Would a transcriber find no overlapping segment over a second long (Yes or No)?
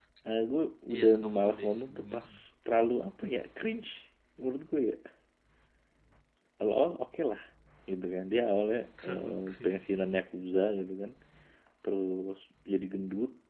No